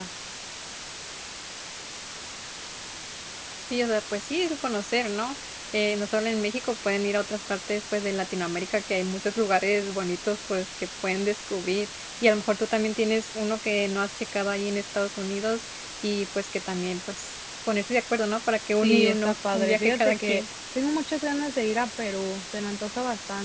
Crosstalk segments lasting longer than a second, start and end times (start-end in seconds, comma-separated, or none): 18.8-20.4